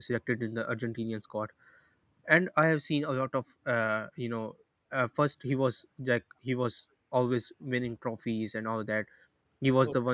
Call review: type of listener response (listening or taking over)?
listening